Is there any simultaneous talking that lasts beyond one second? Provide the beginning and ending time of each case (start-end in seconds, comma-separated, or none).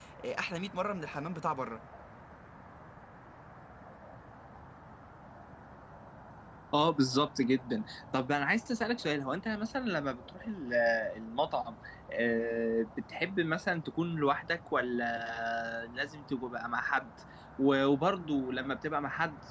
none